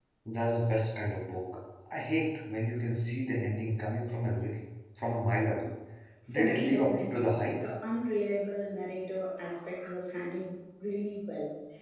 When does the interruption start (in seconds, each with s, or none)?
6.3 s